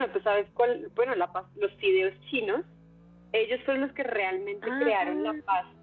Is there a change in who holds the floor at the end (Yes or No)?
No